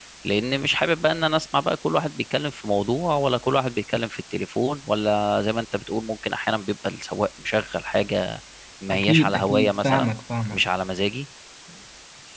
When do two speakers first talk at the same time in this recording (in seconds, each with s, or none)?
8.9 s